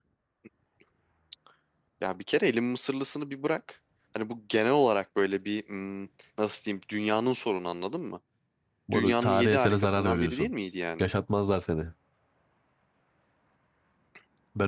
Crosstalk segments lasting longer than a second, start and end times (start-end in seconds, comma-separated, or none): 8.9-10.5